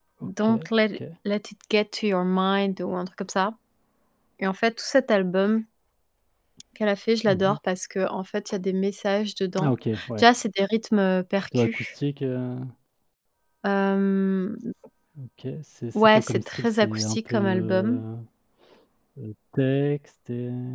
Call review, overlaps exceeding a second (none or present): present